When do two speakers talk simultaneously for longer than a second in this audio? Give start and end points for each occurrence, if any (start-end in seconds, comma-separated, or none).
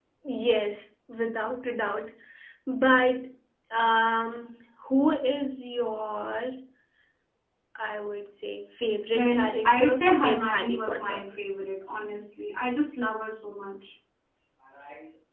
9.1-11.2